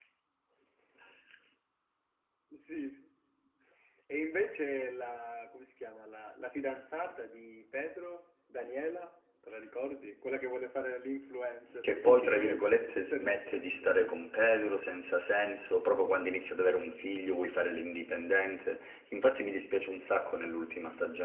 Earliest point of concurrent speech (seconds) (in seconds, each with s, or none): 11.8 s